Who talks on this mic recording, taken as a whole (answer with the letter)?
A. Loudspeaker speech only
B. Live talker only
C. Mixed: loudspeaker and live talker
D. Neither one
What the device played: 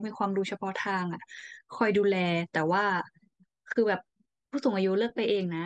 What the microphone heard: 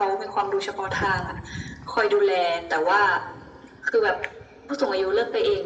A